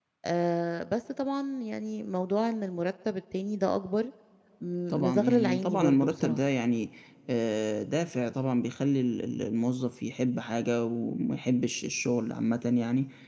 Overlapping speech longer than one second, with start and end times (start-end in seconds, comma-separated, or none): 4.9-6.4